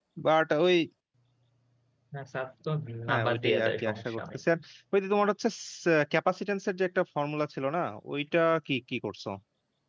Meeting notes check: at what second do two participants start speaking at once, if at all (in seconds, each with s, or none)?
3.1 s